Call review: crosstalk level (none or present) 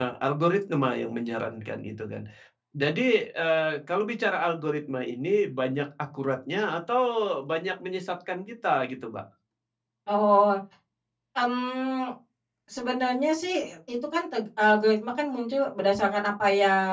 none